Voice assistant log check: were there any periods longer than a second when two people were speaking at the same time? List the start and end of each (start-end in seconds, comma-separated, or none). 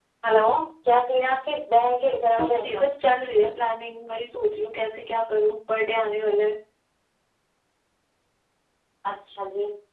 none